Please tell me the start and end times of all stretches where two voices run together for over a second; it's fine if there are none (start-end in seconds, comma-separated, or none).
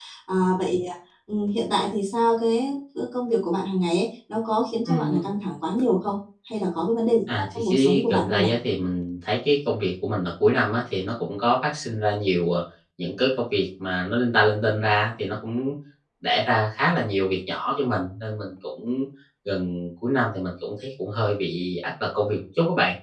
7.3-8.5